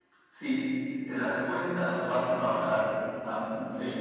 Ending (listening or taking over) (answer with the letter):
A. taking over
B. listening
B